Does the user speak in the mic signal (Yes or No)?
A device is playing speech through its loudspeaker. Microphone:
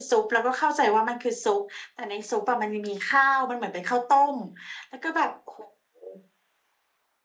No